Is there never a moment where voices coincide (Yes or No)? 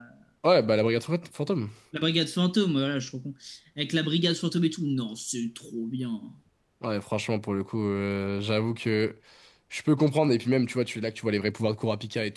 Yes